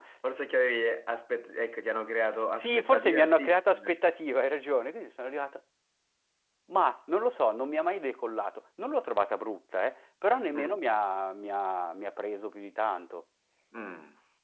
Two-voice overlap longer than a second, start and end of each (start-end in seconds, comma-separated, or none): 2.6-4.0